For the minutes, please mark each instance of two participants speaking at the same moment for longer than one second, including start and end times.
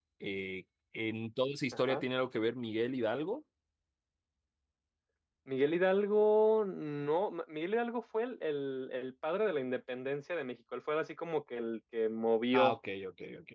none

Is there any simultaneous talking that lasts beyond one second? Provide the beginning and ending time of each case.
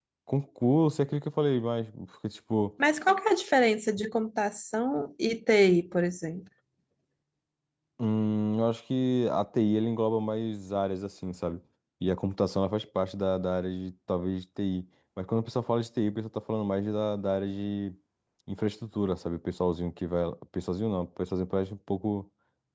none

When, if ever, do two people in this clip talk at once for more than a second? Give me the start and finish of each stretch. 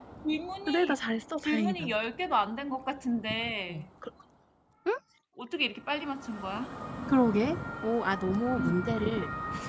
none

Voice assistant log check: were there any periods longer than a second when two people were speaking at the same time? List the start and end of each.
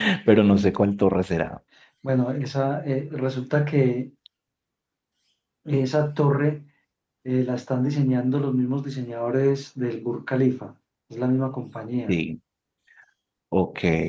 none

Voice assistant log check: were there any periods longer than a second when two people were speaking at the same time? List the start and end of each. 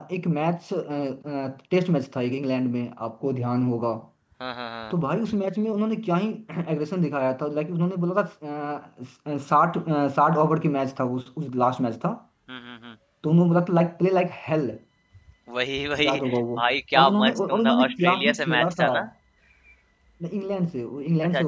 17.0-18.9

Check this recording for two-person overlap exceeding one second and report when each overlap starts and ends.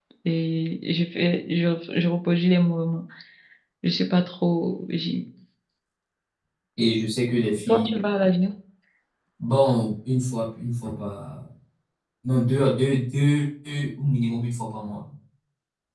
none

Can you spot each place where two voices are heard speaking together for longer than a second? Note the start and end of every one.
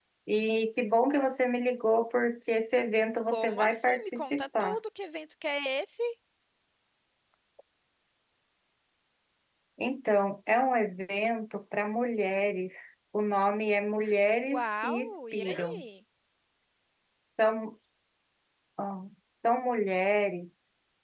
3.3-4.8, 14.5-15.8

